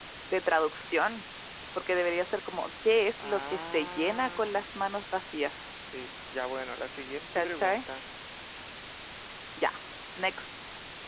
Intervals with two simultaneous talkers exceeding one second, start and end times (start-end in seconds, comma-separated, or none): 3.2-4.7